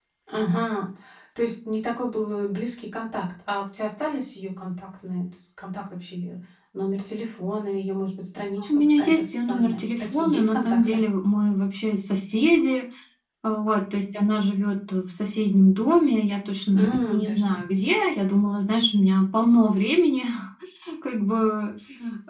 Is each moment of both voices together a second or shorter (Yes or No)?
No